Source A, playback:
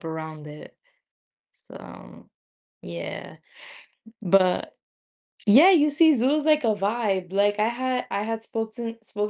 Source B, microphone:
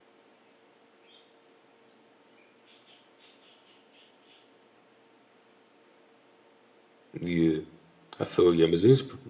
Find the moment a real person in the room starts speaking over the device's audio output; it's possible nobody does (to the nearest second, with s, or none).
7 s